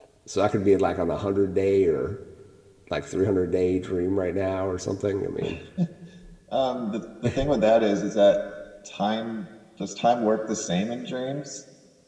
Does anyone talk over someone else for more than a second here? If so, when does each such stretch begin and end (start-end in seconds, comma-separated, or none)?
none